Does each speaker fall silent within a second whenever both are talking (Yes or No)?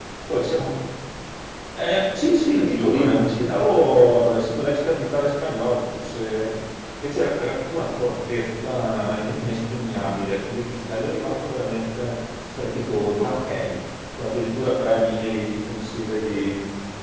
No